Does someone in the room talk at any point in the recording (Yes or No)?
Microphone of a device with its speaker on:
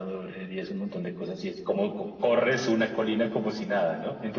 No